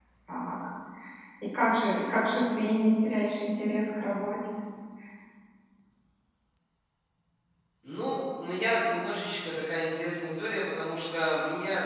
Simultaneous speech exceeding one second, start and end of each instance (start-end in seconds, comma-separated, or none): none